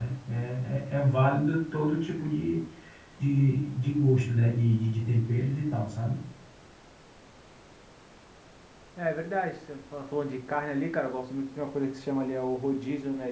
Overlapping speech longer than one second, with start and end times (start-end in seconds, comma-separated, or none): none